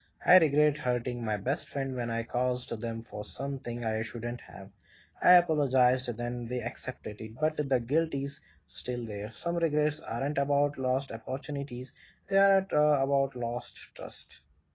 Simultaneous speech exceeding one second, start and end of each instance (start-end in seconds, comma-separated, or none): none